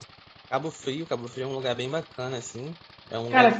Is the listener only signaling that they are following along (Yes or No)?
No